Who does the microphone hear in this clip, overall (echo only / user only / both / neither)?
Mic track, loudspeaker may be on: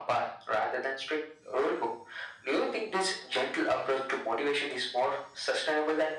echo only